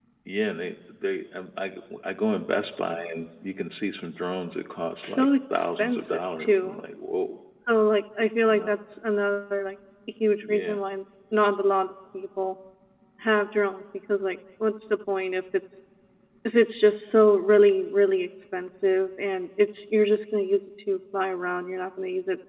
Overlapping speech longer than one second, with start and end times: 5.0-6.8

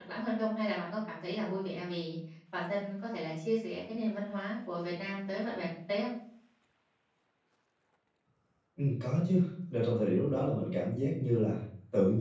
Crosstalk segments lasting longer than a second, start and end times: none

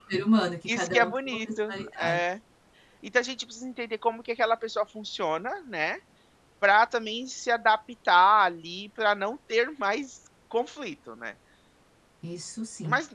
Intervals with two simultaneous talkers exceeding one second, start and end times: 0.7-2.2

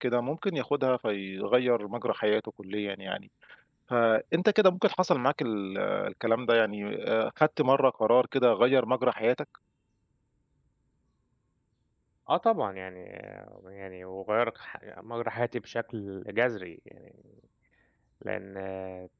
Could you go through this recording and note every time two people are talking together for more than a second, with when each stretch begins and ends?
none

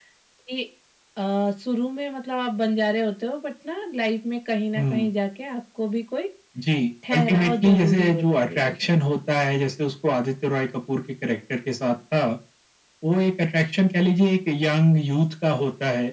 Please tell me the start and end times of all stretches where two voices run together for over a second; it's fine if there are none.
7.1-8.9

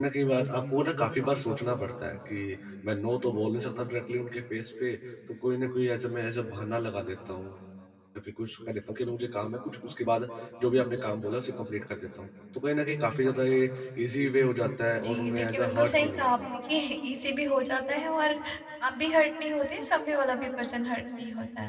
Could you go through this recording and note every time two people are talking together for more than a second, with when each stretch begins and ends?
15.0-16.3

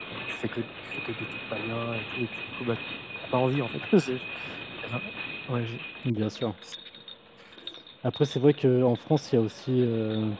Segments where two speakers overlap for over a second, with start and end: none

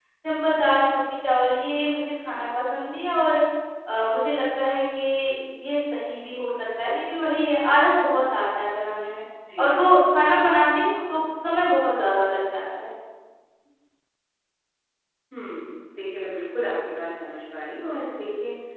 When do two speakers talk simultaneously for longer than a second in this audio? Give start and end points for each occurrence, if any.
none

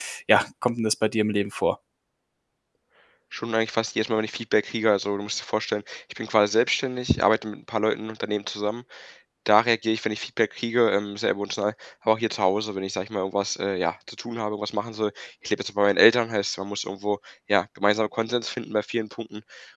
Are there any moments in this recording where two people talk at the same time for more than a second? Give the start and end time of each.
none

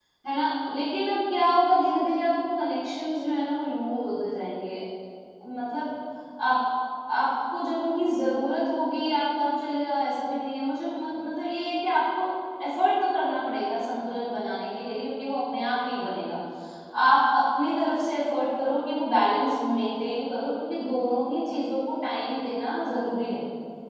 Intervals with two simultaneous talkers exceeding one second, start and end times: none

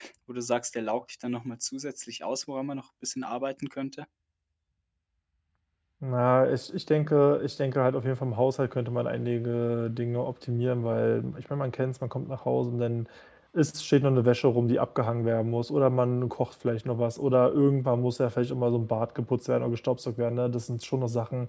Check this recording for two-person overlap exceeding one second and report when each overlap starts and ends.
none

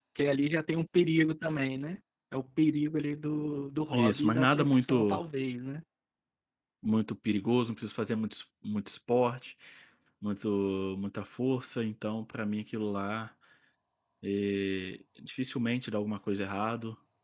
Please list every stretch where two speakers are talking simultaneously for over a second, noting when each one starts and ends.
3.9-5.2

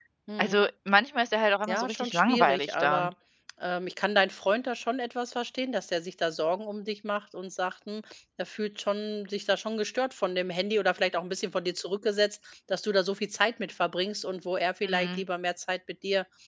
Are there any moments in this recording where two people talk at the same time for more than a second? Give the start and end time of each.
1.7-3.1

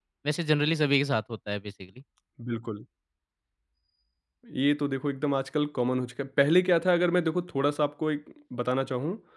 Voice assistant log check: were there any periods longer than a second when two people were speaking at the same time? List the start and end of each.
none

